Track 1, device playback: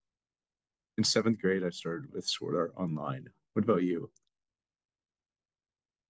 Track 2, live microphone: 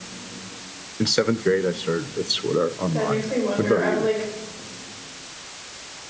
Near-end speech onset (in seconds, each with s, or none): 2.9 s